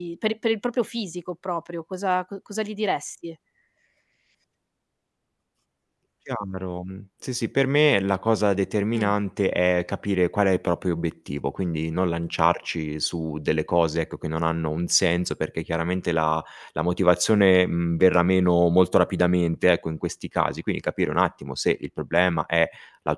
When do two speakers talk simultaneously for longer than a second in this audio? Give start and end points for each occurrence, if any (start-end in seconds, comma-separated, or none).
none